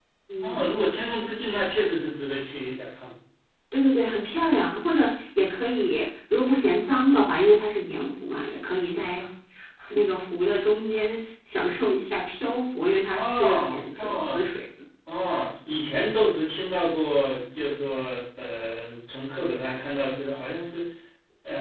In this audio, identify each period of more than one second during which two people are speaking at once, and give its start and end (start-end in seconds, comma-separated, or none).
13.2-14.5